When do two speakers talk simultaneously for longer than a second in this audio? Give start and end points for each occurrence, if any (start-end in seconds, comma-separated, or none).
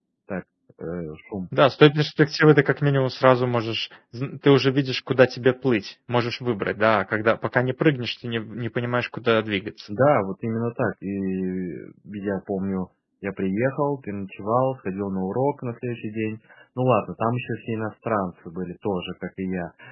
none